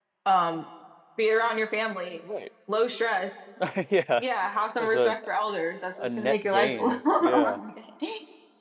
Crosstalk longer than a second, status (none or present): present